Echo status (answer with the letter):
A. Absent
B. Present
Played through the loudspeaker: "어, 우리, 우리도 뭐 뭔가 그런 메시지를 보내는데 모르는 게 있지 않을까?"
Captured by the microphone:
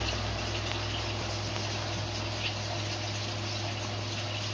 A